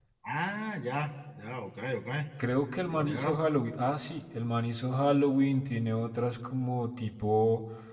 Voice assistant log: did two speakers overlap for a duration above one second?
No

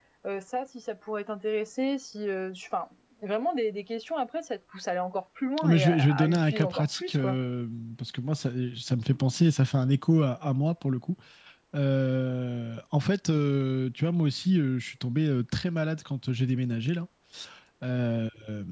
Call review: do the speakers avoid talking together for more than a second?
No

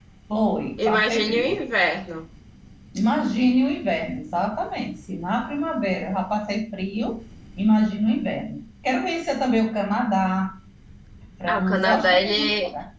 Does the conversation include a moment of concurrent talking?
Yes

